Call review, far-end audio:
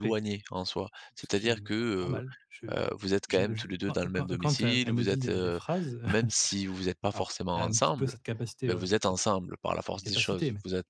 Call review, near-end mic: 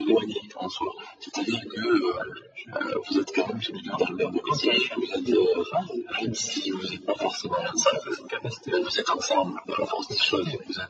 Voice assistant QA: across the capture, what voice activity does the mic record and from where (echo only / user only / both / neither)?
echo only